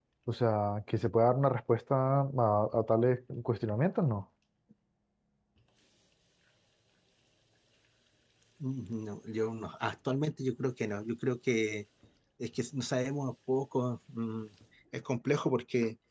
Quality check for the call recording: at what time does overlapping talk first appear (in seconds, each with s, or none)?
none